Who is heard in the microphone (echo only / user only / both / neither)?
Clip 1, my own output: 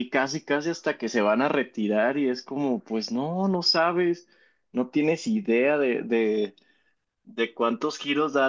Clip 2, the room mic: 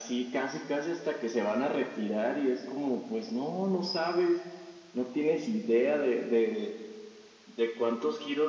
echo only